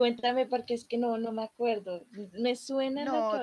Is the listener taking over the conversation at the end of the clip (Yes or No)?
Yes